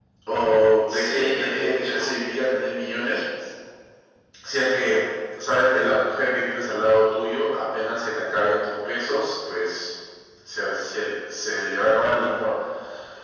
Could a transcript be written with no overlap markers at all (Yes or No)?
No